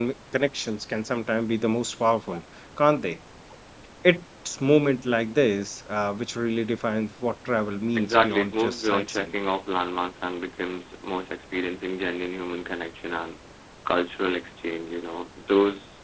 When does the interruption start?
8.0 s

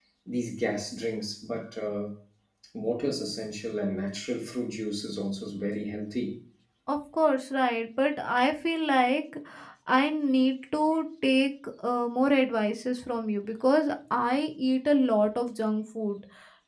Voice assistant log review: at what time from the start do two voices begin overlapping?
none

